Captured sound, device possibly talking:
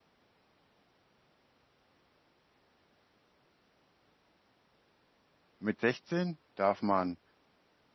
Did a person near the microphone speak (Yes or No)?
Yes